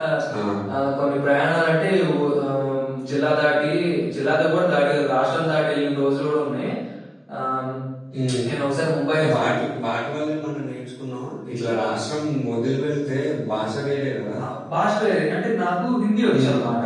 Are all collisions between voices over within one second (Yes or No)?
Yes